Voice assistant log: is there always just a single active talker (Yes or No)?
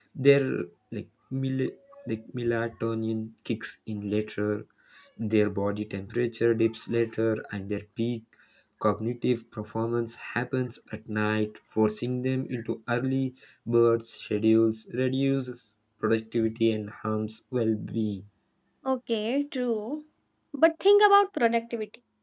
Yes